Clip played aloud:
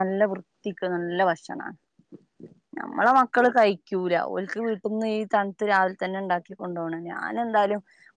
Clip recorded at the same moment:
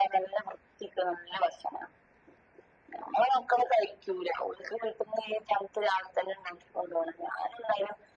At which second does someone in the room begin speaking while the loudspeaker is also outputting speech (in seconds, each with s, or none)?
none